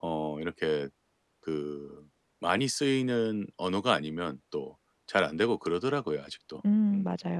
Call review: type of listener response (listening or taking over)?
taking over